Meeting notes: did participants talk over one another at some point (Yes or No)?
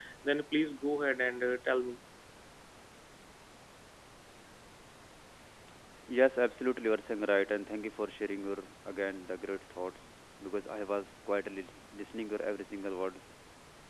No